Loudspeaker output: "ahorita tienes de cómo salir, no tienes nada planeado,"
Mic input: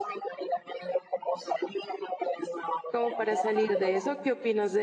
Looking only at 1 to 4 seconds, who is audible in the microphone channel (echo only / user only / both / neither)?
both